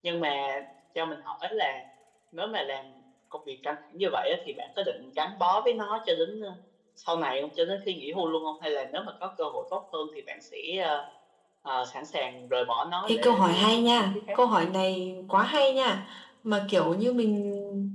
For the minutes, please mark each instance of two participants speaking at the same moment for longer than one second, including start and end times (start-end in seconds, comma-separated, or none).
13.1-14.4